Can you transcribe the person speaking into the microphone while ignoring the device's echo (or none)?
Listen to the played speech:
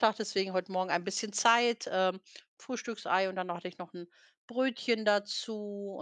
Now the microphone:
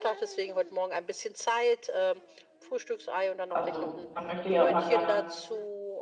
also, man möchte ja immer gerne